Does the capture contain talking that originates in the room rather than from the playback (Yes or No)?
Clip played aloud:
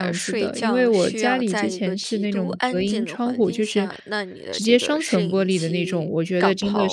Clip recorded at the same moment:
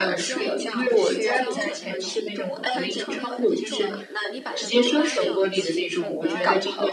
Yes